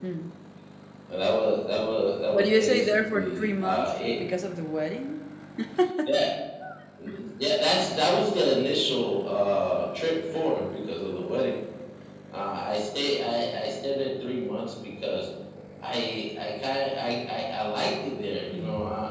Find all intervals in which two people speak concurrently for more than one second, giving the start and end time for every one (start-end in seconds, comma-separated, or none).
2.3-3.9